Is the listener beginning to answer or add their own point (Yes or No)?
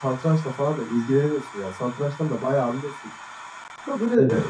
No